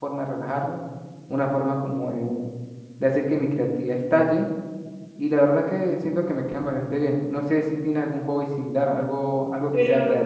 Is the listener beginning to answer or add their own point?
Yes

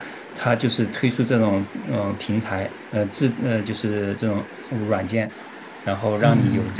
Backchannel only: No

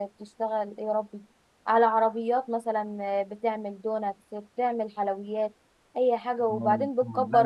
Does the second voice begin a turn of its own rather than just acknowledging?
Yes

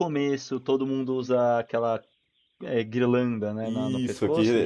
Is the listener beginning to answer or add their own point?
Yes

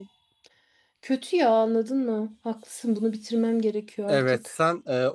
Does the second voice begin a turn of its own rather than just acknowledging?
Yes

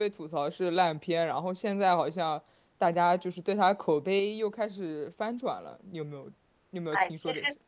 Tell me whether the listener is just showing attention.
No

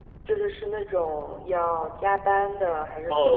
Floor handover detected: Yes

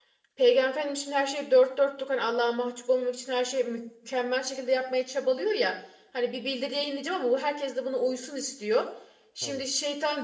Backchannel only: Yes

